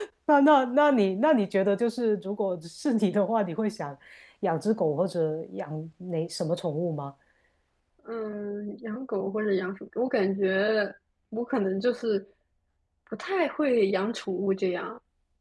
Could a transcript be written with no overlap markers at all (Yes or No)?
Yes